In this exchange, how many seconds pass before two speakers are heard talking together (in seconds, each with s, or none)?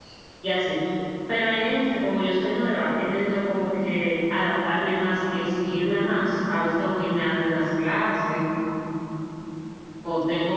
none